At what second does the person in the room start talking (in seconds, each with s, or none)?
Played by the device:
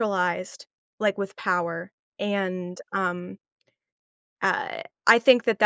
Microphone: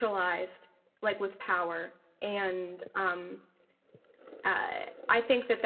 none